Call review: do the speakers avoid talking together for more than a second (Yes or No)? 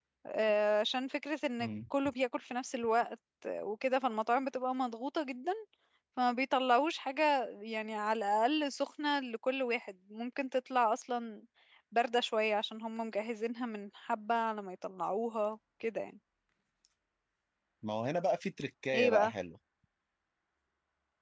Yes